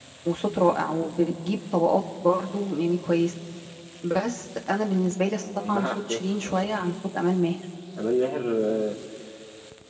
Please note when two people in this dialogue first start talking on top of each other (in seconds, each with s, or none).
5.4 s